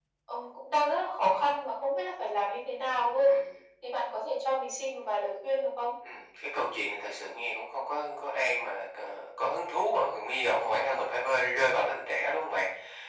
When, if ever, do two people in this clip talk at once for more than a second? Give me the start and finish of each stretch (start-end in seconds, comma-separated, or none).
none